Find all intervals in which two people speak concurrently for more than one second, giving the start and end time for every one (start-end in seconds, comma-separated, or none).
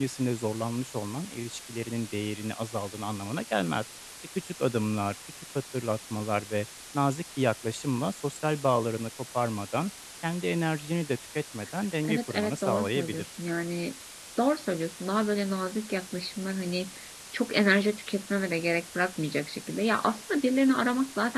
12.0-13.2